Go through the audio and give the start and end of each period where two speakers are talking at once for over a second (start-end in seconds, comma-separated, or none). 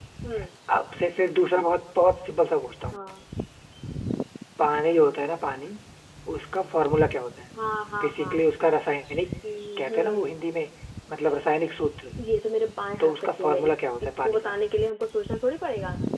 13.0-14.5